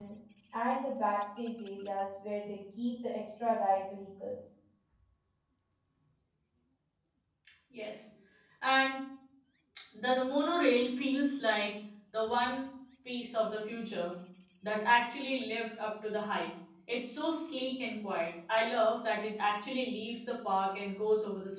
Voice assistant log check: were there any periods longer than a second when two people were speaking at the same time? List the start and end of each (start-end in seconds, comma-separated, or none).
none